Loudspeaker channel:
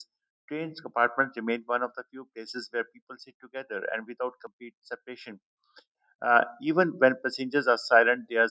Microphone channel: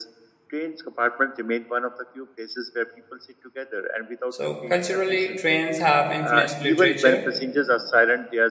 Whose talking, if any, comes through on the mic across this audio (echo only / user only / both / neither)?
both